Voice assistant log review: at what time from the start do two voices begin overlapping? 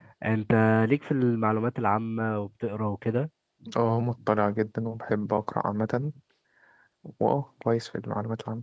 none

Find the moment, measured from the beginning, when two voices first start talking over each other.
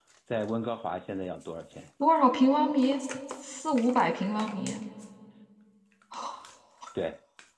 none

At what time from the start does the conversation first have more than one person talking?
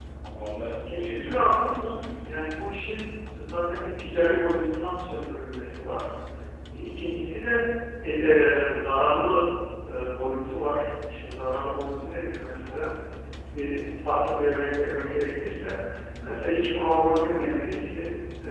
1 s

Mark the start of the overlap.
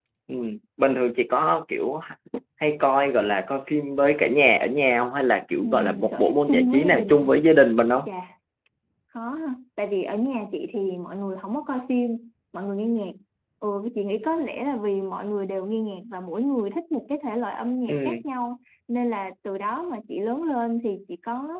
6 s

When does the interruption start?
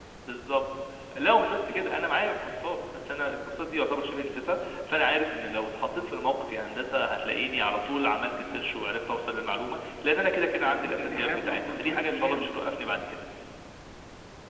11 s

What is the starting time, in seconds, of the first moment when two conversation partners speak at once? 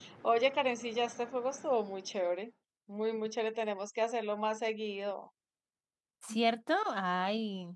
none

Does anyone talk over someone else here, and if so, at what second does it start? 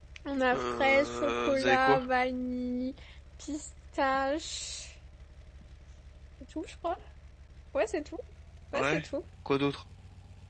1 s

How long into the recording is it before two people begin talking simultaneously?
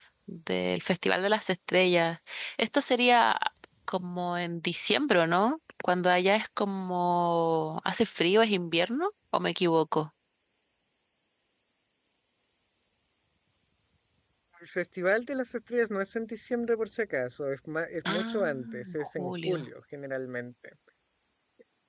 18 s

